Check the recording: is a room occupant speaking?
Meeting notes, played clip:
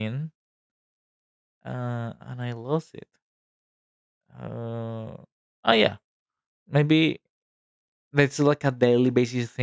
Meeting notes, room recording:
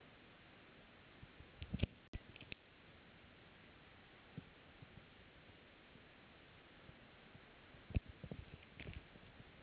No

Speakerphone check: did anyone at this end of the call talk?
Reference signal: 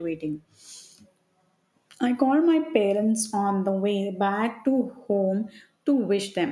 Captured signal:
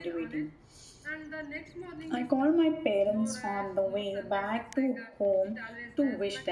Yes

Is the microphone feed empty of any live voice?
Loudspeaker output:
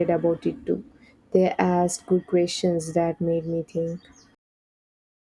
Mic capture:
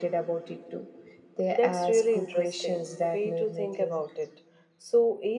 No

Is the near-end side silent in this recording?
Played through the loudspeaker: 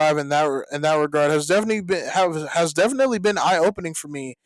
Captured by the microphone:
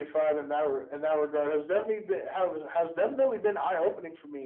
Yes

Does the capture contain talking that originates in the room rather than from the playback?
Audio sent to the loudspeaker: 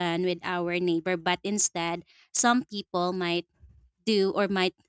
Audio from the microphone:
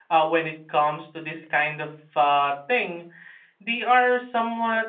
Yes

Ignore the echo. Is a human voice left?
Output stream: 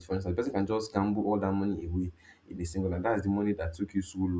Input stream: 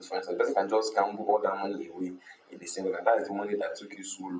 No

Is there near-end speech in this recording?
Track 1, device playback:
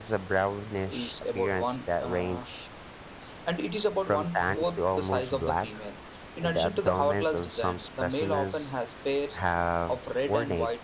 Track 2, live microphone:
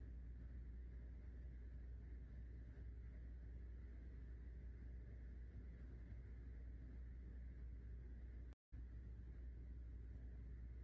No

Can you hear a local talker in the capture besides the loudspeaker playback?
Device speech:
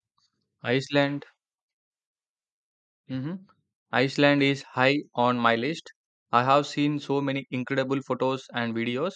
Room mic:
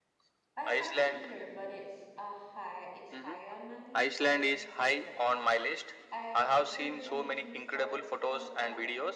Yes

